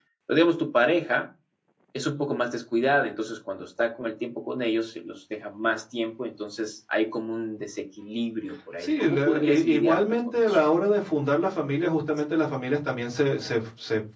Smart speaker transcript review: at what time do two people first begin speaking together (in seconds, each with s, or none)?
8.8 s